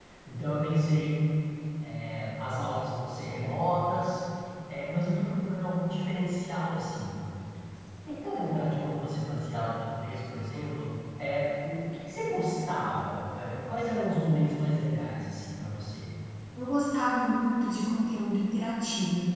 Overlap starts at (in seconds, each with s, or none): none